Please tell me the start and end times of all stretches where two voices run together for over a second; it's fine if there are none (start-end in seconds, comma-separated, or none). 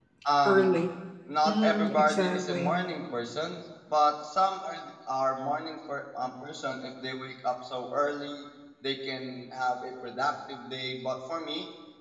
1.5-2.7